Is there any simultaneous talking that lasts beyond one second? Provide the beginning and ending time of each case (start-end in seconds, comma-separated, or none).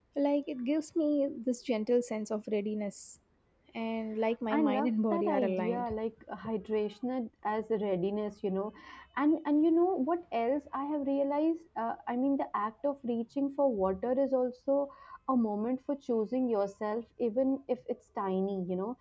4.5-5.9